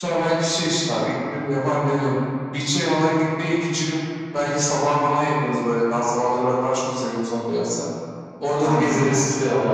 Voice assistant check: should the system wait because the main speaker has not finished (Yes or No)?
No